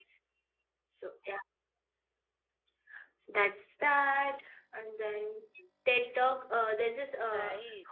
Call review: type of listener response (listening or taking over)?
listening